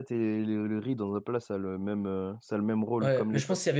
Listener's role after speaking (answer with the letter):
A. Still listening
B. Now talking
B